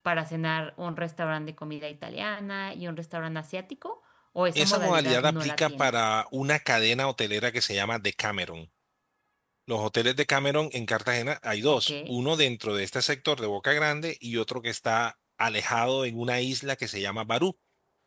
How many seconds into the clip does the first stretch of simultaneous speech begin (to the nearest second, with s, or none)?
5 s